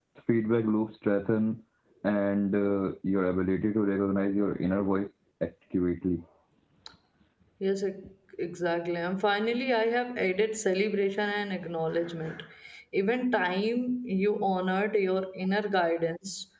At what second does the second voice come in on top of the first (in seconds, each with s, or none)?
none